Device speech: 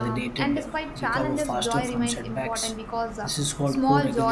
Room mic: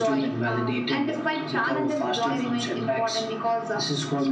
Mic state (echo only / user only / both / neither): echo only